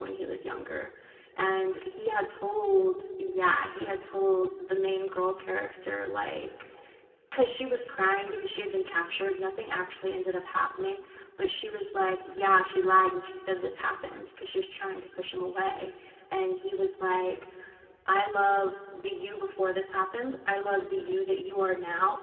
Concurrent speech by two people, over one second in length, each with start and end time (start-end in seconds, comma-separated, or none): none